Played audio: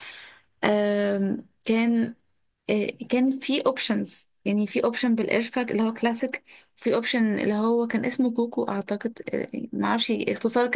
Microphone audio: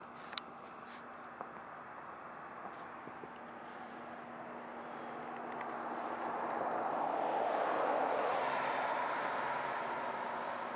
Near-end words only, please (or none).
none